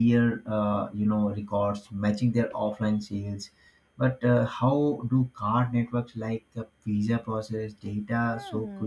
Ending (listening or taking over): taking over